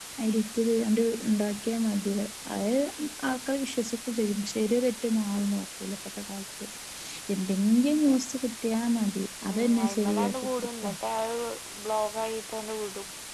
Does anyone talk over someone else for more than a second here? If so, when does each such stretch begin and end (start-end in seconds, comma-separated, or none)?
9.4-10.9